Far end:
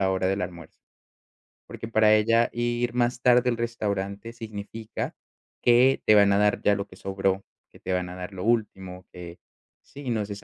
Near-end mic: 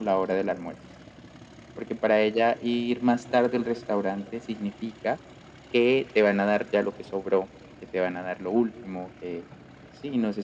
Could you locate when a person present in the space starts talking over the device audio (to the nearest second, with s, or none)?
none